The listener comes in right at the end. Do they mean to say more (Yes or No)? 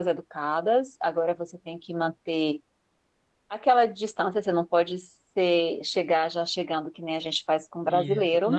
Yes